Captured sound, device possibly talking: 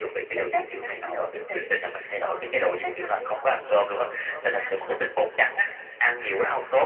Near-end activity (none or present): none